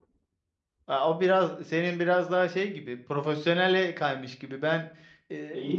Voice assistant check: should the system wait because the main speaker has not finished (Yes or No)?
Yes